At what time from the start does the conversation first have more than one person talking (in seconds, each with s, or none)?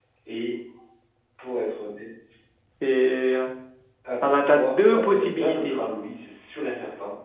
4.2 s